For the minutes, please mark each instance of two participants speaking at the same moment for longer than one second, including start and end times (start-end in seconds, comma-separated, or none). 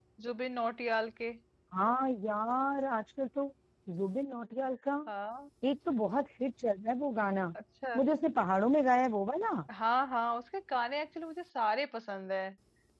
none